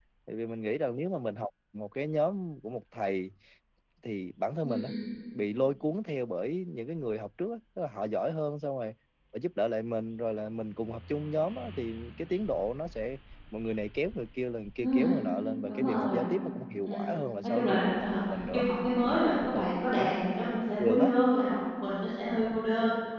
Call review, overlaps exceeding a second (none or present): present